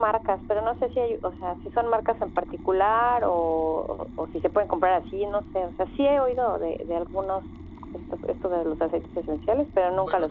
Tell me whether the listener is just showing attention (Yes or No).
No